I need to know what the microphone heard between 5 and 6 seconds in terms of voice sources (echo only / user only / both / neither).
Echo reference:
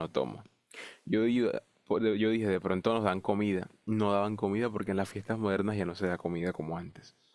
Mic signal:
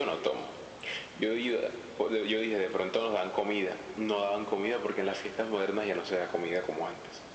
echo only